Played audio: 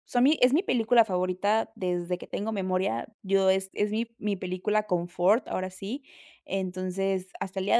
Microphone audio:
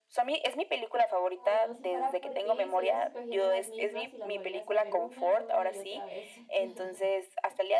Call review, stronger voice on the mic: echo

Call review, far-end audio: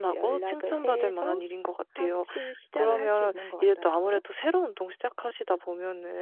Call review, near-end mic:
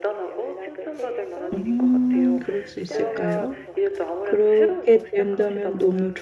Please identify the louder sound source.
user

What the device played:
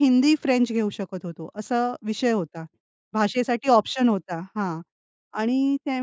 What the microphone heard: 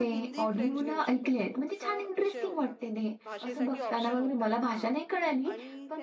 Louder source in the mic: user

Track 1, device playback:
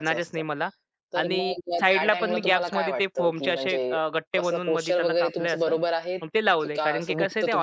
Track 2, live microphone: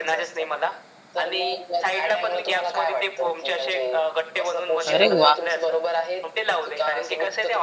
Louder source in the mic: user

